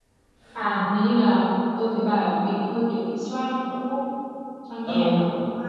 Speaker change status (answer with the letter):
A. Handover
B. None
A